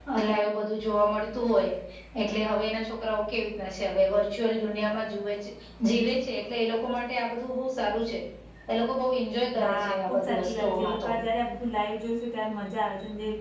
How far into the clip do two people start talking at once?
9.6 s

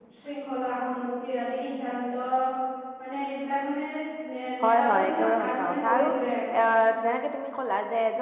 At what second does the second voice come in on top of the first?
4.6 s

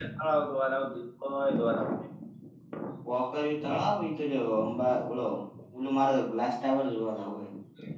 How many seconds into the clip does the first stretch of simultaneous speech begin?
none

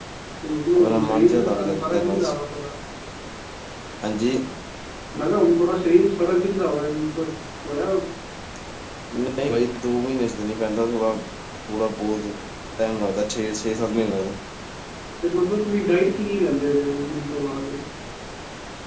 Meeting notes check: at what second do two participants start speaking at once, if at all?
0.7 s

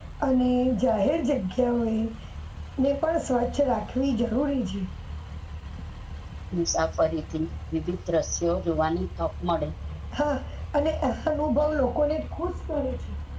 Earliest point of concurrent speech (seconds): none

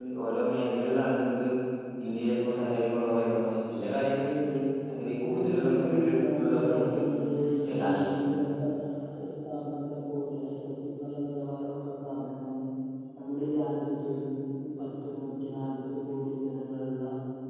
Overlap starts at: 5.1 s

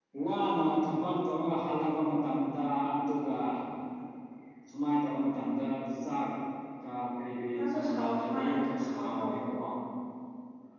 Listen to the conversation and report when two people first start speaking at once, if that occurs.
7.5 s

